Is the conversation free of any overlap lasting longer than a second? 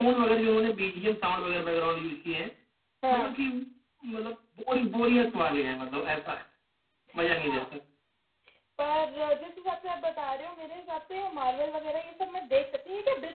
Yes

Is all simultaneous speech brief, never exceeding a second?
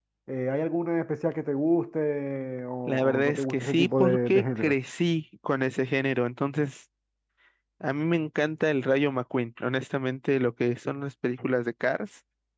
No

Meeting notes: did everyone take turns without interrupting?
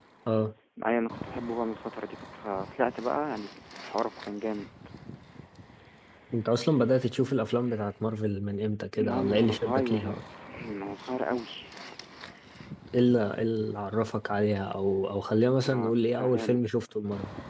No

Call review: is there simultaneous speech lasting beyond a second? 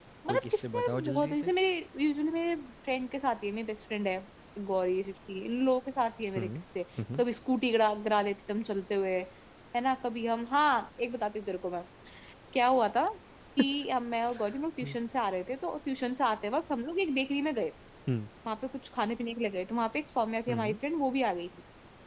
Yes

